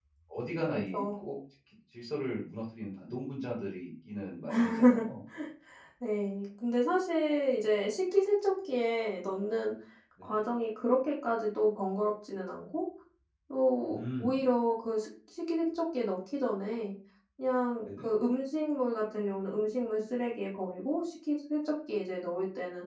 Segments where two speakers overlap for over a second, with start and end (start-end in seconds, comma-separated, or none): none